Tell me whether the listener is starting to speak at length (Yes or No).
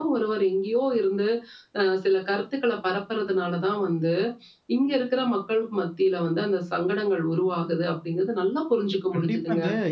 Yes